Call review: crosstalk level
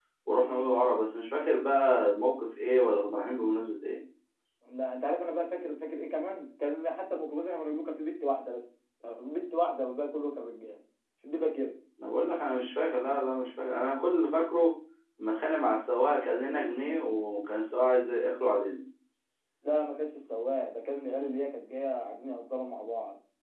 none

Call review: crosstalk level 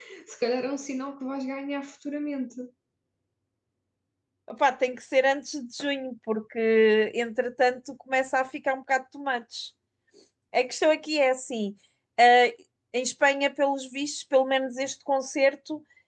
none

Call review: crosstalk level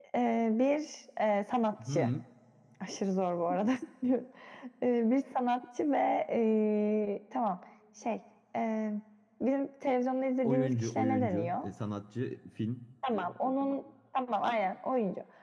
present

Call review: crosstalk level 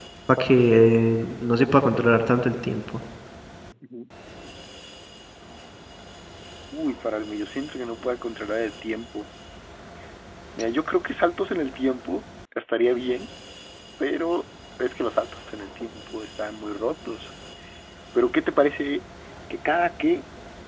none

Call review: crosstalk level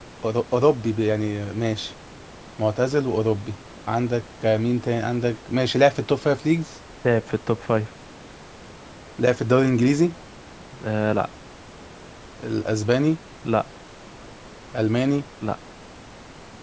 none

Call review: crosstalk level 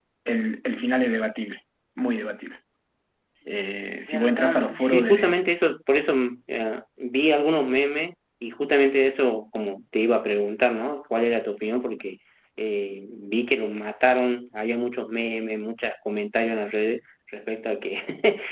present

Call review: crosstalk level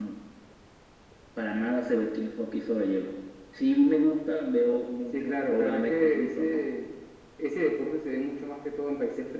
present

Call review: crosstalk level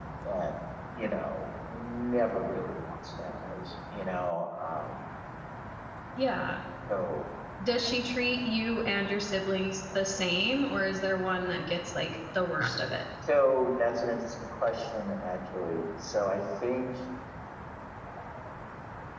none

